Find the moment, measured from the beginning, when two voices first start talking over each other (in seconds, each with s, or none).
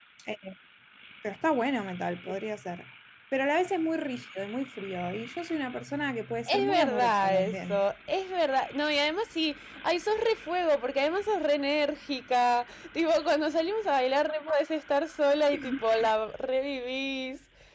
6.5 s